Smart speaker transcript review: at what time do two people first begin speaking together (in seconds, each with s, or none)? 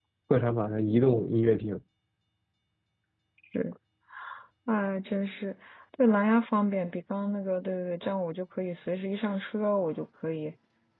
none